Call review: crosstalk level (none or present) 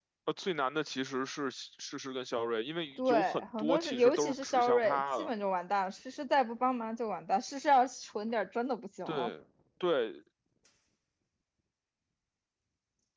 present